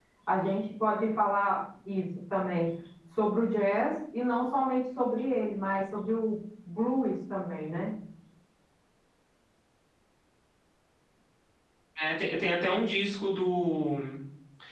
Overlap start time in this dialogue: none

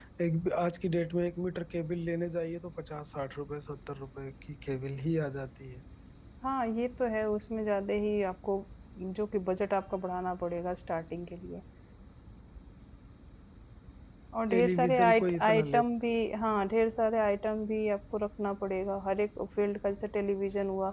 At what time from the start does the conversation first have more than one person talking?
14.5 s

